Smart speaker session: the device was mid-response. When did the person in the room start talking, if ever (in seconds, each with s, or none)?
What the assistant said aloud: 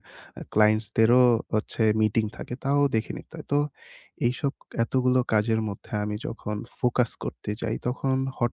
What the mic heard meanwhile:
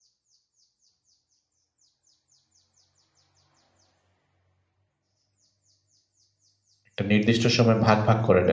6.9 s